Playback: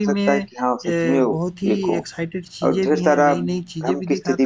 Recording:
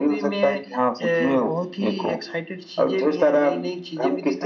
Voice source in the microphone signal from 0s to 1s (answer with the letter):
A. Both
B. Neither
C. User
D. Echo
D